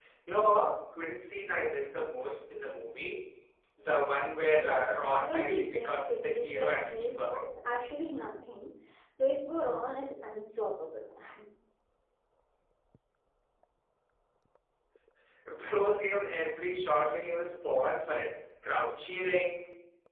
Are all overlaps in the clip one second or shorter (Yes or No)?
No